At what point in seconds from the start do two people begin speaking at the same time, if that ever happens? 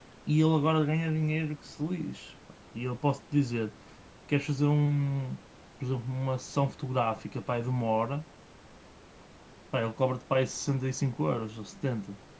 none

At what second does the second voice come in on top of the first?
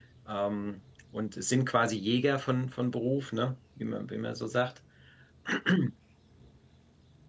none

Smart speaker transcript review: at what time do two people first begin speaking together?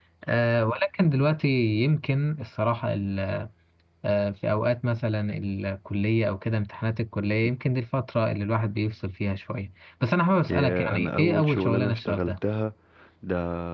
10 s

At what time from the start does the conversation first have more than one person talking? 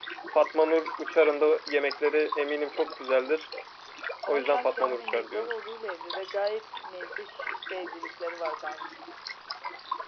4 s

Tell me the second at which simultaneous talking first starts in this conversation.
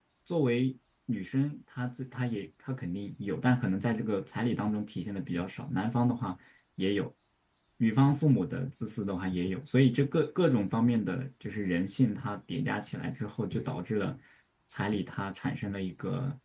none

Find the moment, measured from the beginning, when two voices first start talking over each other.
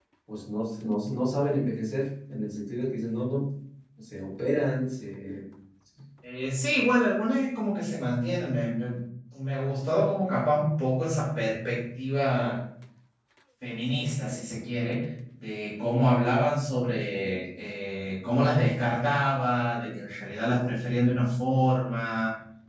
none

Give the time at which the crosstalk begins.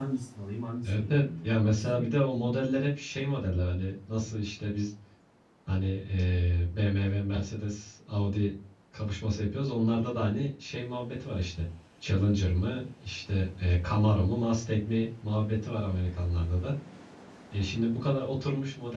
1 s

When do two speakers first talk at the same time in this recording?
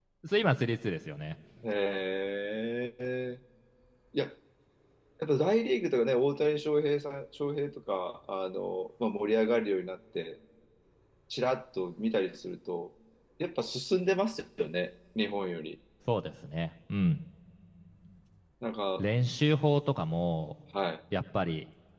none

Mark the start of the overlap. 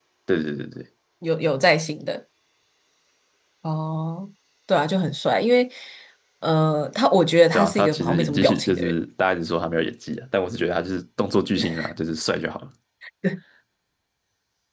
8 s

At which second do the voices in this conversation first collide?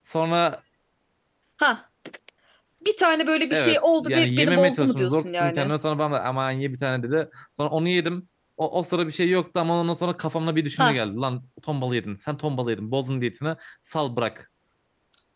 4 s

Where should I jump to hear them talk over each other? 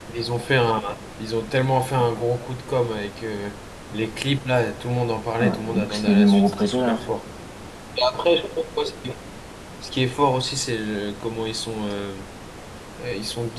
5 s

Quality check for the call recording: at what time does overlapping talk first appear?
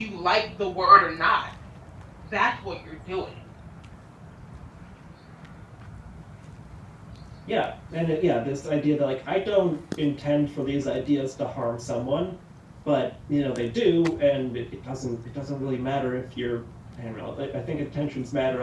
none

